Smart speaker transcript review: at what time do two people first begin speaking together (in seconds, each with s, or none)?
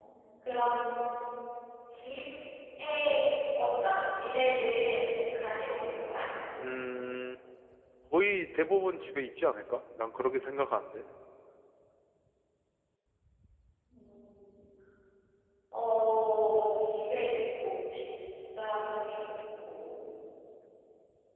none